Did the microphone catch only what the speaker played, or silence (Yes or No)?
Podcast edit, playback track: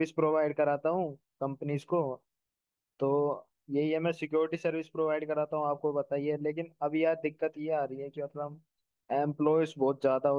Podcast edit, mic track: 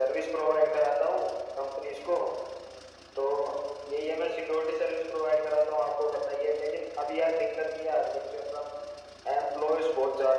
Yes